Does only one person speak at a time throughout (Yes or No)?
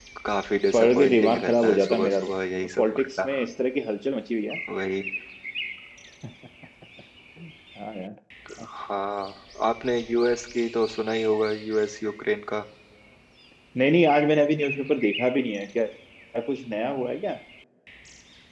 No